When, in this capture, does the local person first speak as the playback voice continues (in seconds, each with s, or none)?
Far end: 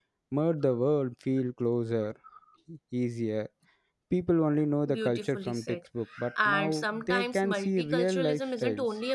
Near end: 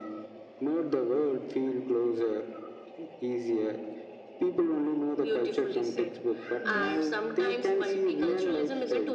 6.6 s